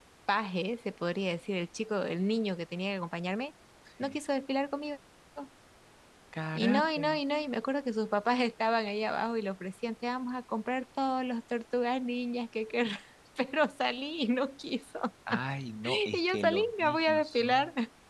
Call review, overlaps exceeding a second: present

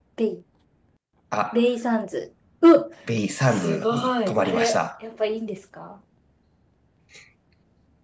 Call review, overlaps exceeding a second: present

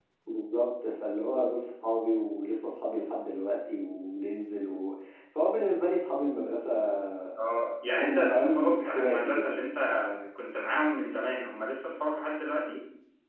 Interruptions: present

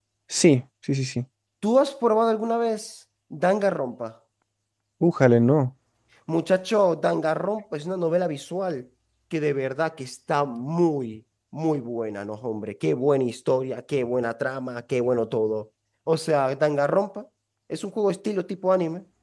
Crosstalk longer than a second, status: none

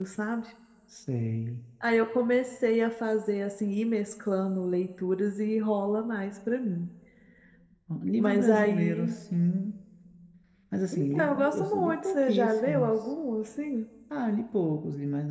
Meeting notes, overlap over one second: present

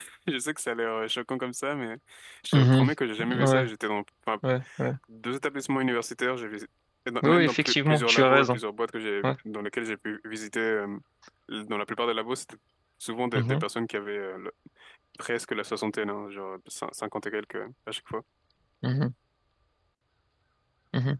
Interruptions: present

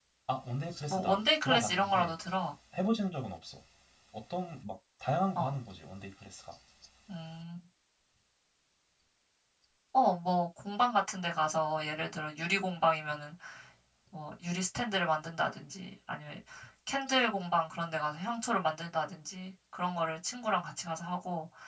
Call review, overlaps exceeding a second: present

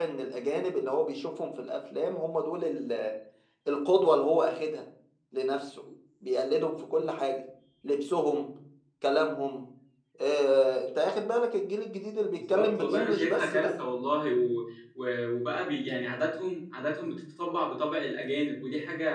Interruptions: present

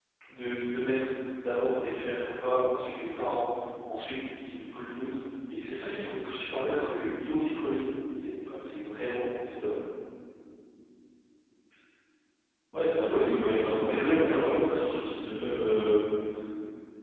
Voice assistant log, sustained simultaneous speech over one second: present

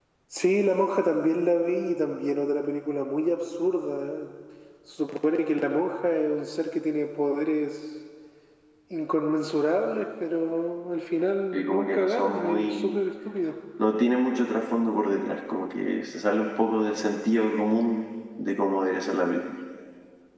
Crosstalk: present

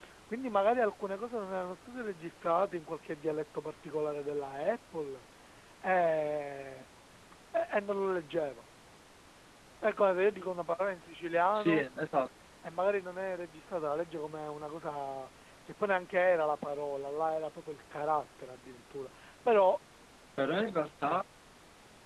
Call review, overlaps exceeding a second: none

